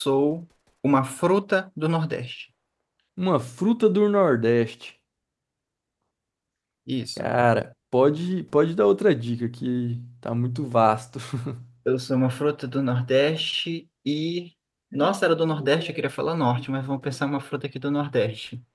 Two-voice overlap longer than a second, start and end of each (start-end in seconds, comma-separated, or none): none